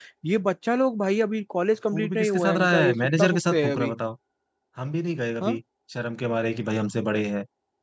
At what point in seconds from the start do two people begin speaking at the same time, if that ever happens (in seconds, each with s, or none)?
1.9 s